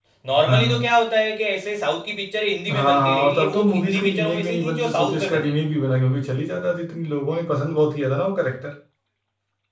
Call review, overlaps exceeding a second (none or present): present